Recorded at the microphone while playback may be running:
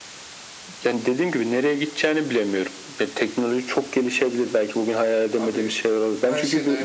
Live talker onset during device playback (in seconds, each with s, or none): 5.3 s